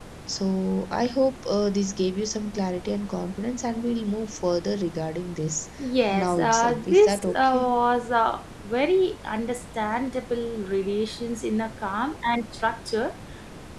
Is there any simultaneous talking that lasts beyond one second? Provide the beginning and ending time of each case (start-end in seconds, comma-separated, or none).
6.1-7.7